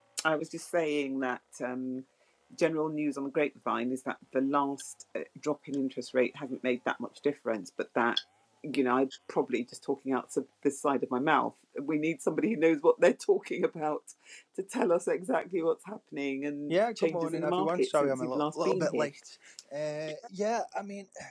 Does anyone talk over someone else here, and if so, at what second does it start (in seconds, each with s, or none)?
16.7 s